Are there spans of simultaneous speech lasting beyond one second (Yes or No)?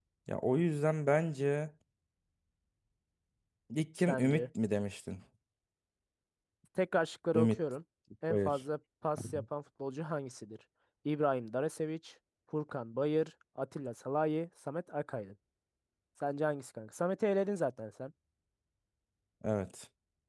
No